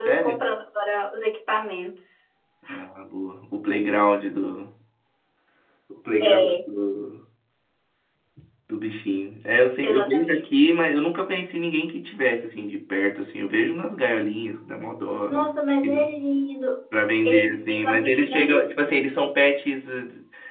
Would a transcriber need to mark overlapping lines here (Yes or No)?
Yes